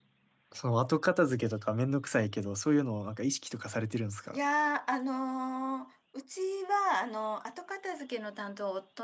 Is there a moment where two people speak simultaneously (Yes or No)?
No